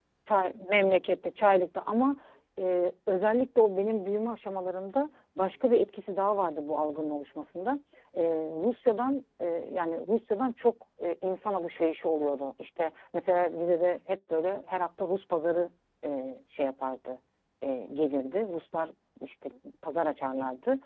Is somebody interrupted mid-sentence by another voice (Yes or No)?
No